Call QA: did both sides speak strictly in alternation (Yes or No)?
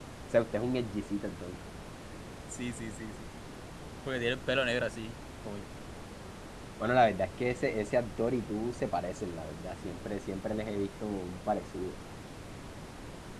Yes